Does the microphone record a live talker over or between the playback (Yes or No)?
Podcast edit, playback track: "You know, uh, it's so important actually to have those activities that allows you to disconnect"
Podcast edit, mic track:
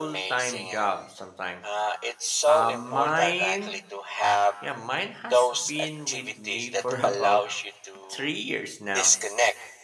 Yes